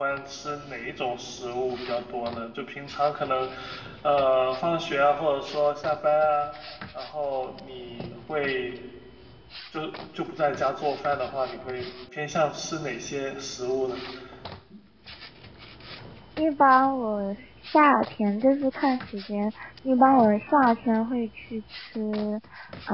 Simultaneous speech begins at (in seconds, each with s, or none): none